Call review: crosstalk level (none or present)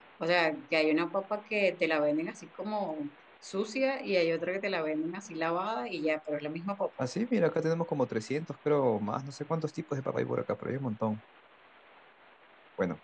none